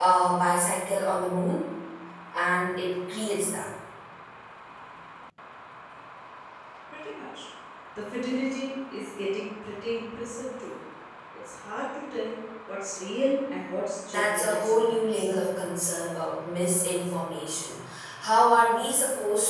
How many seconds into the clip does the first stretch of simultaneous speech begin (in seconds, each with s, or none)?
14.1 s